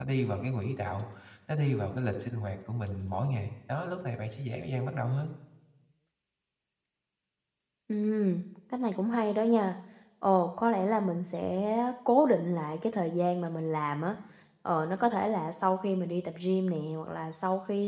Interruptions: none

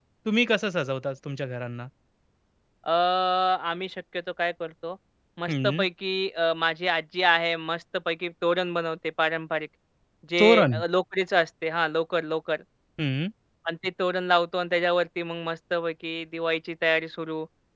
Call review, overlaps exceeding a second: none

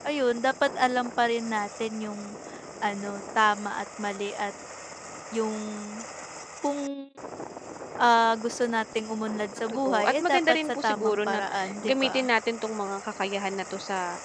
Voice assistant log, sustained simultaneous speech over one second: present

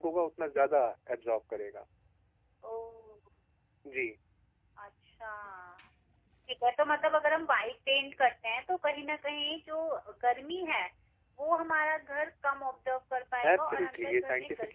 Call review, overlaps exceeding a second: present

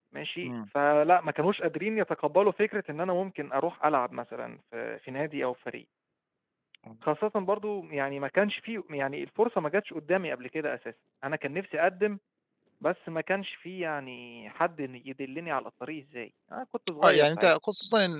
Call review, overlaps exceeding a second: none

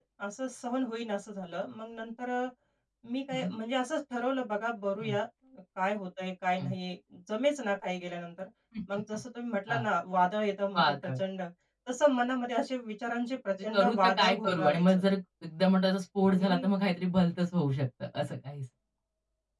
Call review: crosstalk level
present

